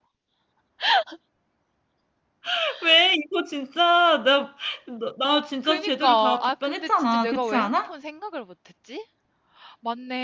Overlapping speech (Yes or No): Yes